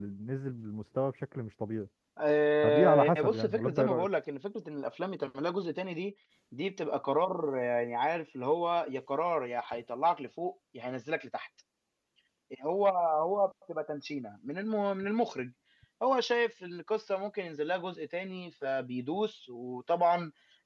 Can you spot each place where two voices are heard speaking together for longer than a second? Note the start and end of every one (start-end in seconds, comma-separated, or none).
2.6-4.1